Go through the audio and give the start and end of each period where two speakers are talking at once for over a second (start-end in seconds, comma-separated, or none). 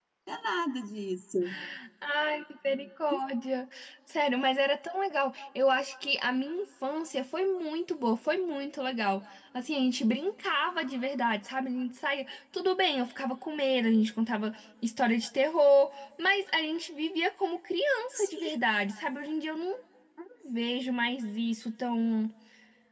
none